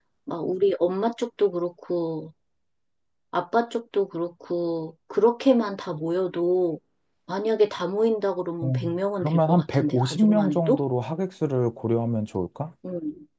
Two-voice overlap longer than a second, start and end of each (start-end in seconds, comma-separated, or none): 8.6-10.8